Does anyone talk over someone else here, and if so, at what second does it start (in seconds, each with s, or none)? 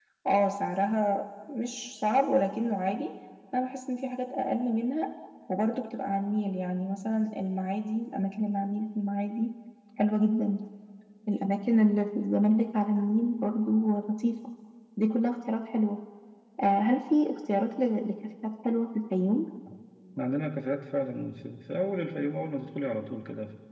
none